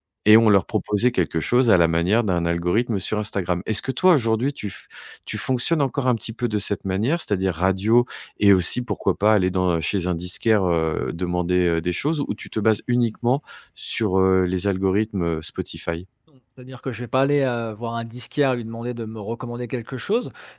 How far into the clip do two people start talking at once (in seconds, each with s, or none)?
none